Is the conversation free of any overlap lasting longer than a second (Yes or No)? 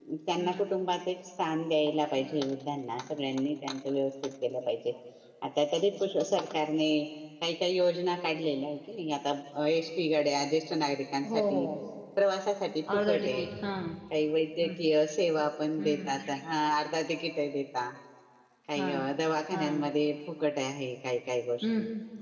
Yes